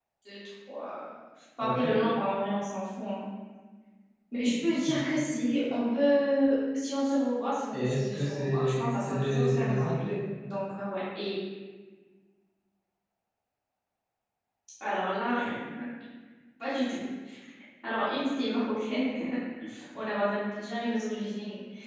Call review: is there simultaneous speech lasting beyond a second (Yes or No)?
Yes